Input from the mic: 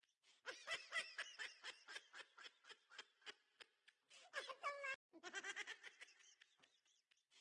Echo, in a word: none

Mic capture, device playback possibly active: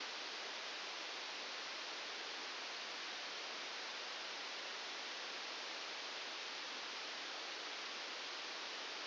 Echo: none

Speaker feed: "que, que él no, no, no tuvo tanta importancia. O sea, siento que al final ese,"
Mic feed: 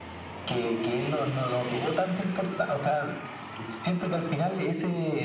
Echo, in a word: present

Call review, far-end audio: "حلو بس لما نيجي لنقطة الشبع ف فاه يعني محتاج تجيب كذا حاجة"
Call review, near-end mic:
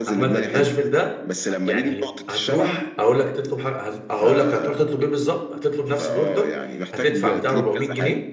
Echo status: present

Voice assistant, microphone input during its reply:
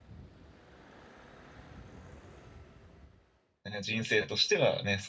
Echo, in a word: none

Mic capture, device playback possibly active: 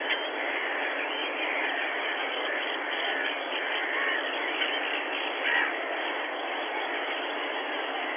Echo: none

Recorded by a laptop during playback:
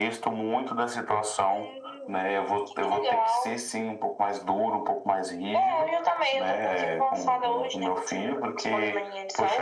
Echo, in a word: present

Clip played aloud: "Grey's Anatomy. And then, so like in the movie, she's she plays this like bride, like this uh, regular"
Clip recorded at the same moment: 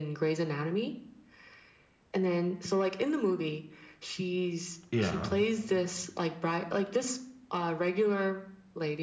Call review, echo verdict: present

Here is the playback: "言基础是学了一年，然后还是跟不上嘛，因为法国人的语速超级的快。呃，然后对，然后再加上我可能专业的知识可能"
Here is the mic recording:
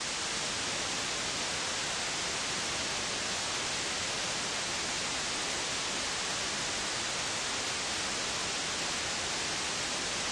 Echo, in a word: none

